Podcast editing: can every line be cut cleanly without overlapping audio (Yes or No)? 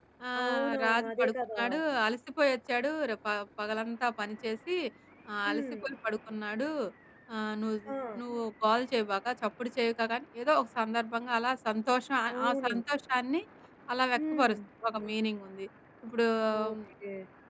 No